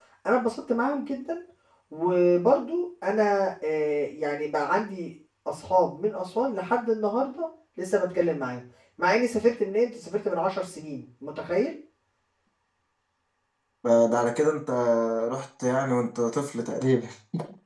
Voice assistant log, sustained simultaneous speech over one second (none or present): none